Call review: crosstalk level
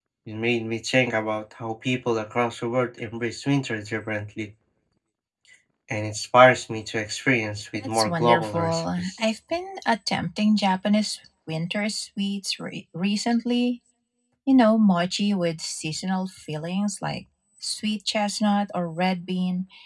present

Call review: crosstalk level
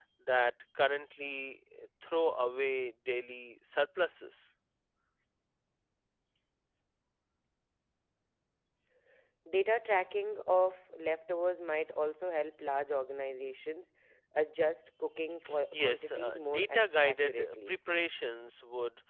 present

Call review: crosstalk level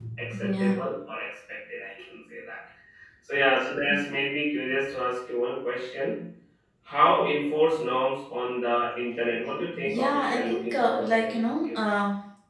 present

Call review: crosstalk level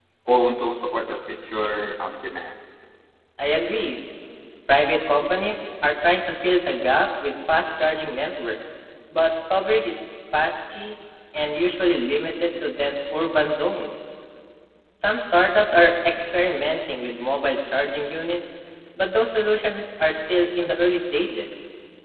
none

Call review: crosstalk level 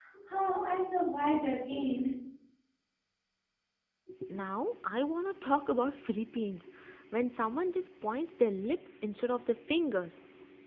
none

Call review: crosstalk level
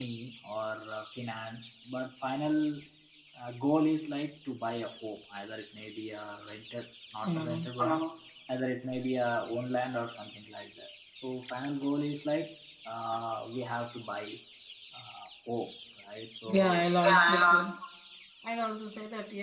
present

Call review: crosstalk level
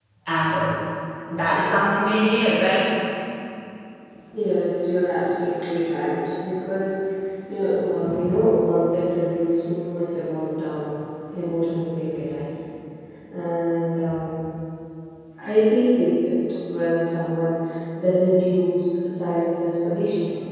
none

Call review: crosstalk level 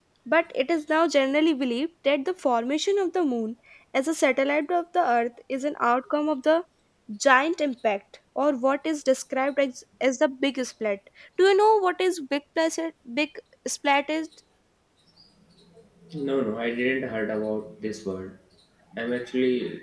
none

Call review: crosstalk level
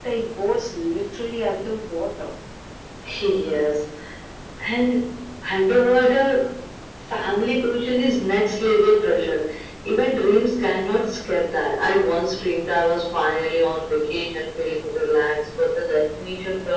none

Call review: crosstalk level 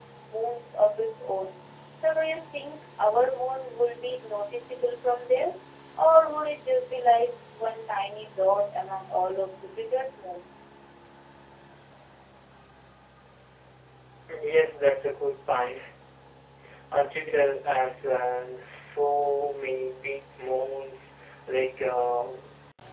none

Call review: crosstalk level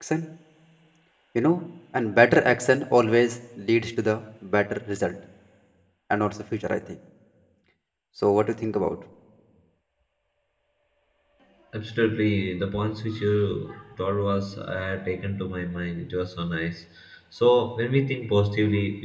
none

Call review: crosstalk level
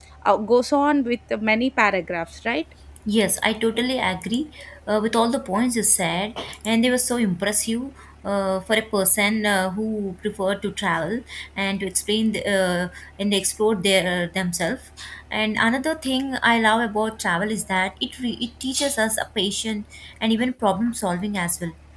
none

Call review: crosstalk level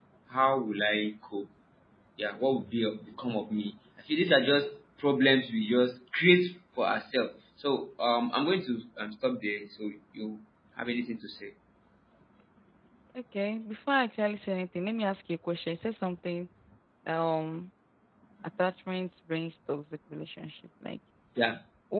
none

